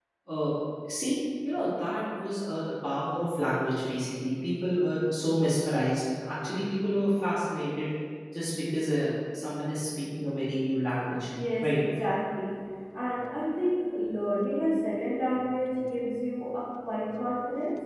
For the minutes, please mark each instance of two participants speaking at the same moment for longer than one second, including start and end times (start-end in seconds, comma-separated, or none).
none